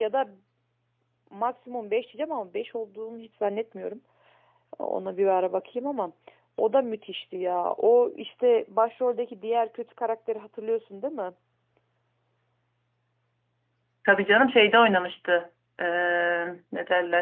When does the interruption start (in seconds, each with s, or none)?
none